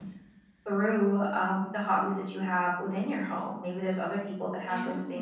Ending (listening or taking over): listening